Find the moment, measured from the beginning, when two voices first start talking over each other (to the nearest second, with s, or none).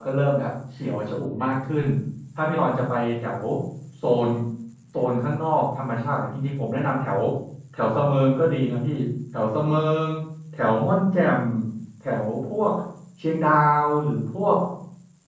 none